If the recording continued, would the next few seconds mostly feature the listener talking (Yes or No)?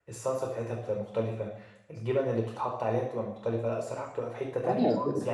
Yes